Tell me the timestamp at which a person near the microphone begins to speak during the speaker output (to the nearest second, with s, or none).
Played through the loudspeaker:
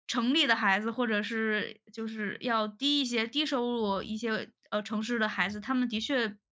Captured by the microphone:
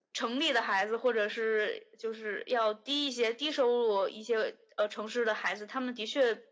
none